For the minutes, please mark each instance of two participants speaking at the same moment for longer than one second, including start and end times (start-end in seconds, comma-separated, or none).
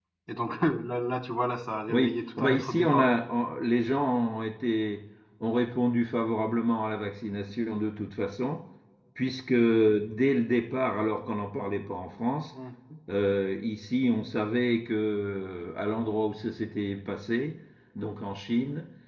1.9-3.1